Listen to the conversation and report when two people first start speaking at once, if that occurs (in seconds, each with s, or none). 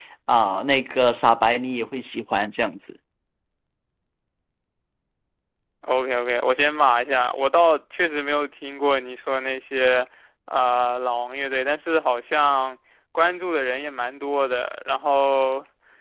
none